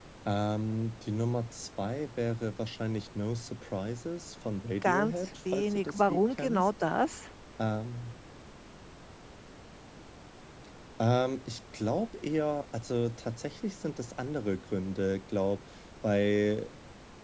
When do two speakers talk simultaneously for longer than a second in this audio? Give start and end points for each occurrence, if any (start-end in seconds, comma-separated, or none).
4.8-6.7